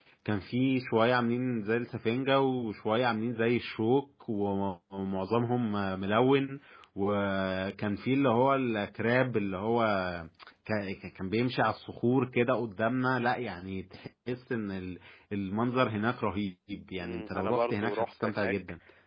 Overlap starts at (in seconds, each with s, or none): 17.0 s